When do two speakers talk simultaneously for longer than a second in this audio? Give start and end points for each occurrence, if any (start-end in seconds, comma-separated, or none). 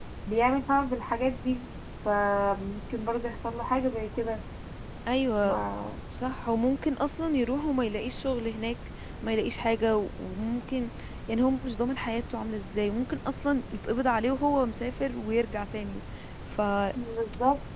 none